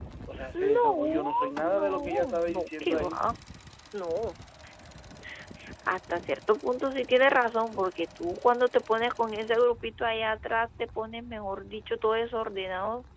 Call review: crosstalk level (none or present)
present